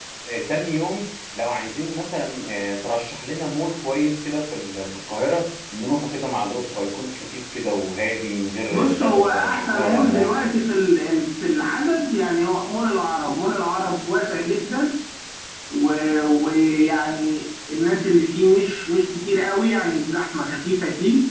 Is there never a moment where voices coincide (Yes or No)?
No